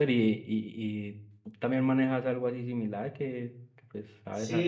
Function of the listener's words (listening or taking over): taking over